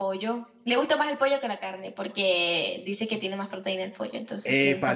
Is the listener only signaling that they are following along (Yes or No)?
No